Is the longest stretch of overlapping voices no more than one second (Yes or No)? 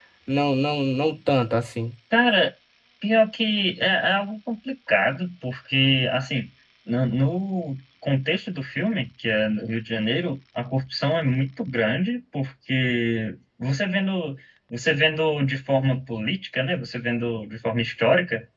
Yes